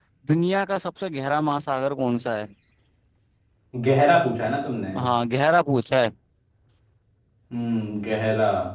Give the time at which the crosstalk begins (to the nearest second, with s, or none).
none